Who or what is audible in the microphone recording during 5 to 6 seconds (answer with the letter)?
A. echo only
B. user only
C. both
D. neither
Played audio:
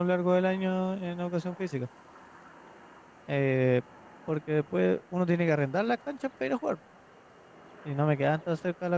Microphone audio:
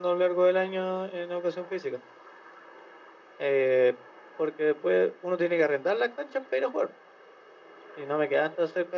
A